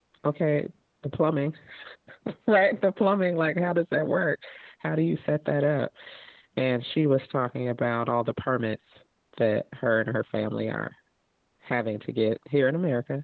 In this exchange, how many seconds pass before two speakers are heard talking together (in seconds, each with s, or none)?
none